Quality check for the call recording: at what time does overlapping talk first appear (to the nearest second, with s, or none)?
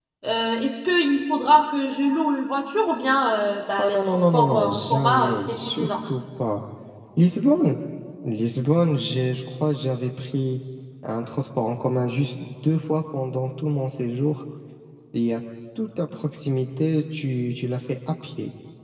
4 s